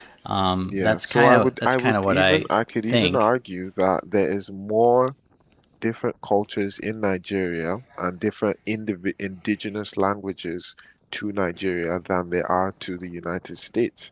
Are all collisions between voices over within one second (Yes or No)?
No